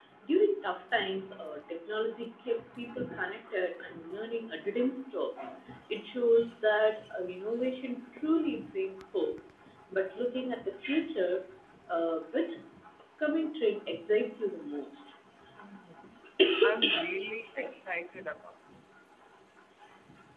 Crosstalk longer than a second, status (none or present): none